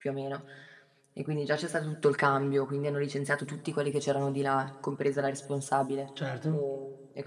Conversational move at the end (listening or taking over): listening